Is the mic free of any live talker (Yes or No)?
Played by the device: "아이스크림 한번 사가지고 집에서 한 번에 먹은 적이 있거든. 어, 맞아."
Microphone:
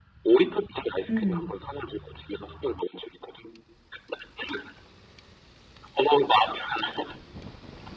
No